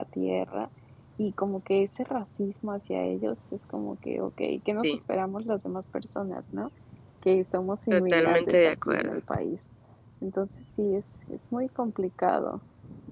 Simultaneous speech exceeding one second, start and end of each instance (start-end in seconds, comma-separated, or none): 7.9-9.2